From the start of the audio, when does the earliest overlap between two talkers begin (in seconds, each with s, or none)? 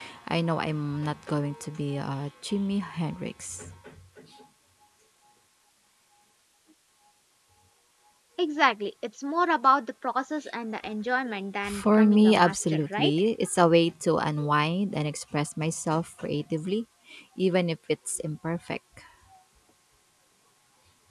11.6 s